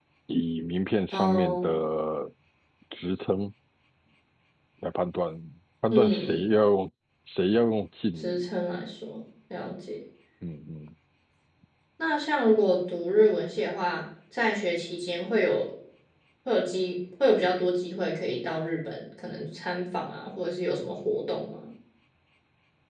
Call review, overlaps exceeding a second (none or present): none